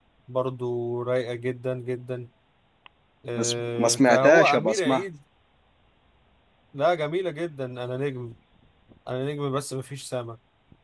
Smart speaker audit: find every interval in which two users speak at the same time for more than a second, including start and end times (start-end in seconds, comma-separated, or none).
3.4-5.0